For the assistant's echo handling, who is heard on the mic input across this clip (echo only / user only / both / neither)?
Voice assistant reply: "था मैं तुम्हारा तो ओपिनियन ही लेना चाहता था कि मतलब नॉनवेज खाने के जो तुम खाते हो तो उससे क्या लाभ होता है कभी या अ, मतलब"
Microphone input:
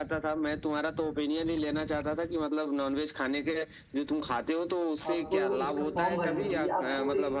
both